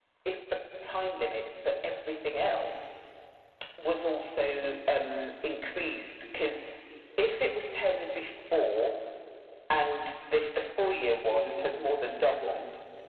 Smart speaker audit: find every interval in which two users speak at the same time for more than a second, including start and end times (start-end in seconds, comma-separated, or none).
none